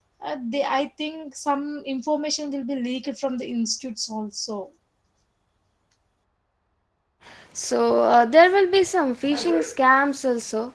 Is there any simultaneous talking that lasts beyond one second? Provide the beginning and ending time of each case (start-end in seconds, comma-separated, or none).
none